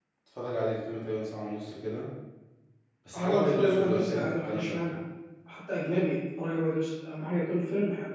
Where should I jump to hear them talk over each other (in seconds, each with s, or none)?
3.2 s